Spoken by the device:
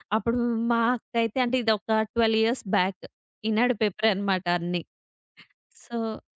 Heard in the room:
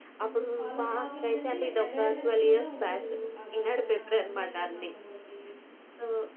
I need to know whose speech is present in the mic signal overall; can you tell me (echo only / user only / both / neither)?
both